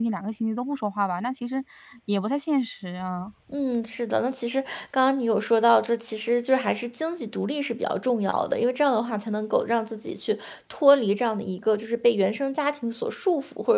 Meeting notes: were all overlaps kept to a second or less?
Yes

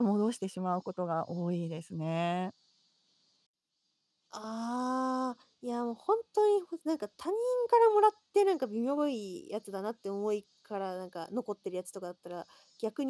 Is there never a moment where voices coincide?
Yes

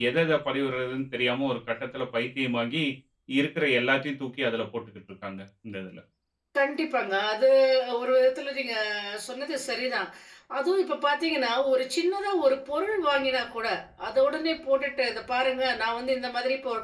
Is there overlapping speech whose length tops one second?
No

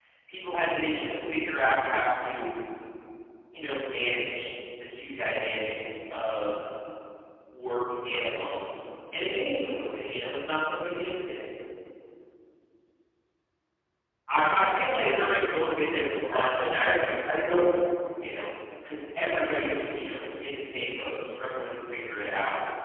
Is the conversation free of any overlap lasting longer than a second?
No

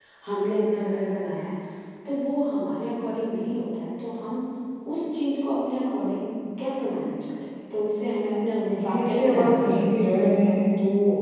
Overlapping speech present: Yes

